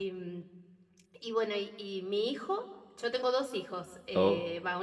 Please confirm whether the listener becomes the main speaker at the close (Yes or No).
No